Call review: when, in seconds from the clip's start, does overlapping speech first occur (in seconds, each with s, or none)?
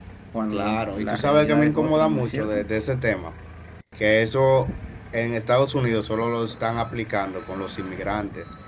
0.5 s